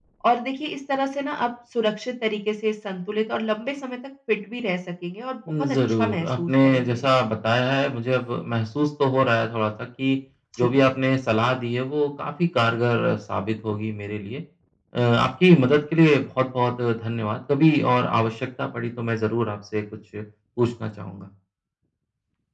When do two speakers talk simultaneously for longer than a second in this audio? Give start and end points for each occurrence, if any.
5.6-7.0

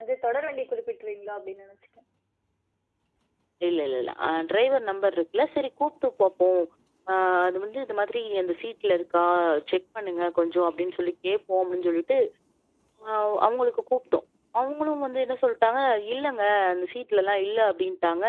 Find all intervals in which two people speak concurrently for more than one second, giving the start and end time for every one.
none

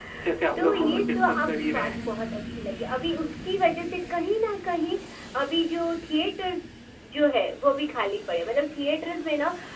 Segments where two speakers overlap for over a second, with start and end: 0.6-1.9

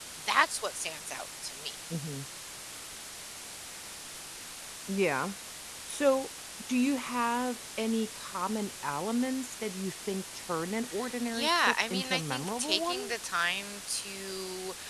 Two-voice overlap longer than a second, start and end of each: 11.3-13.1

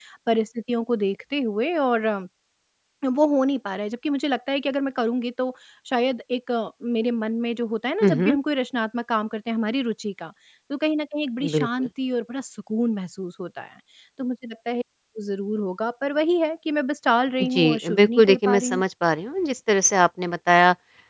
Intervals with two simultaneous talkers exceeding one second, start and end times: 17.4-18.8

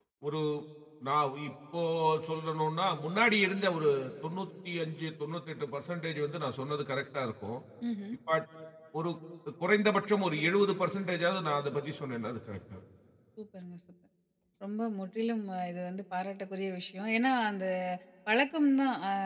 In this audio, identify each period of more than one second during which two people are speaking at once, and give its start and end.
none

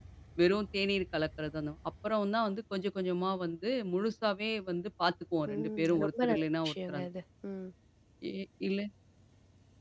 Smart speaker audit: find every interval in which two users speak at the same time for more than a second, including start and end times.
5.5-7.1

